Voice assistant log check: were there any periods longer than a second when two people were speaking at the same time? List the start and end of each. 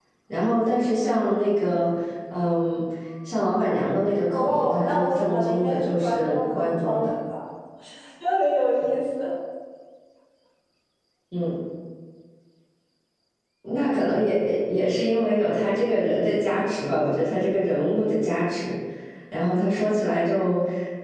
4.3-7.1

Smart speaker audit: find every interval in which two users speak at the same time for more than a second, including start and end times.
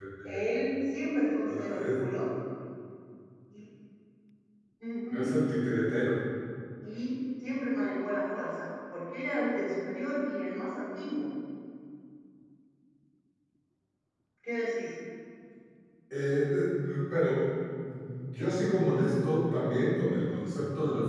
none

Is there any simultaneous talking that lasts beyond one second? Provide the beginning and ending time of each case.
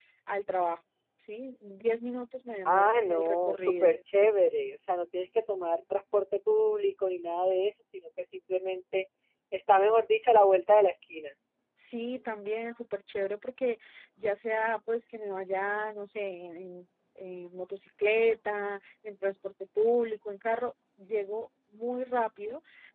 2.6-4.0

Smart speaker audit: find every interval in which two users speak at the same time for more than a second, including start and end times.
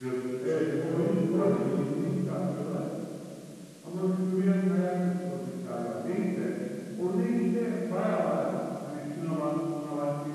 0.7-2.1

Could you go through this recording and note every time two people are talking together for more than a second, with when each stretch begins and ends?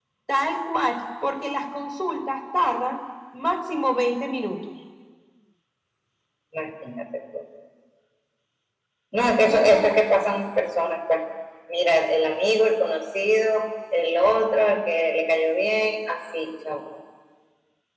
none

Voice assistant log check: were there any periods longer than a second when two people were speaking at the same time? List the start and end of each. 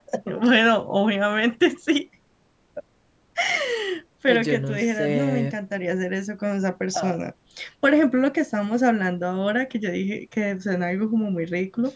4.3-5.6

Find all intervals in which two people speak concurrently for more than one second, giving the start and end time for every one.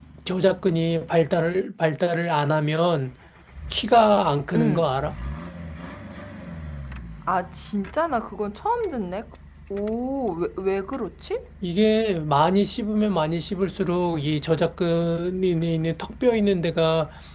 none

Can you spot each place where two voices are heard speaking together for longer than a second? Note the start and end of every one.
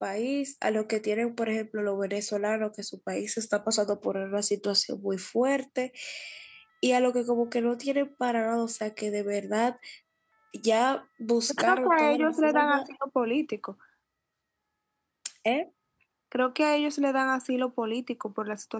11.5-12.8

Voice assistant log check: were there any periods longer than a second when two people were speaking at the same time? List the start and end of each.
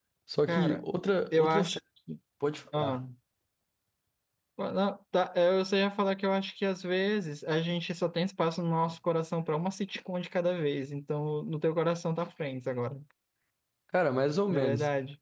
none

